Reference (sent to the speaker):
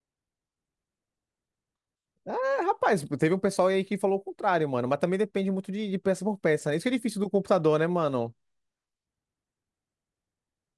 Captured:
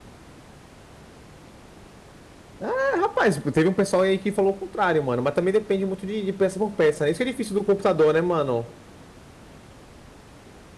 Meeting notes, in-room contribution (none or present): none